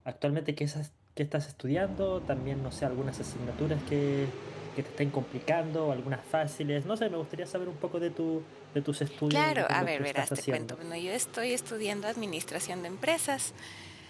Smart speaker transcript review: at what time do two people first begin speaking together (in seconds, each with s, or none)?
9.1 s